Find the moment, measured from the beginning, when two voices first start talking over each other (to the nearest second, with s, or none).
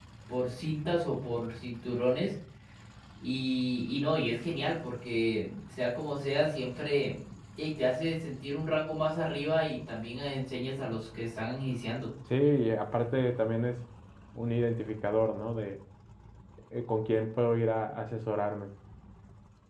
none